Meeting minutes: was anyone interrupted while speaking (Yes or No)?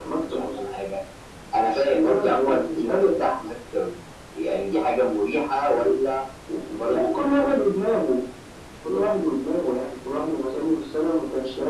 Yes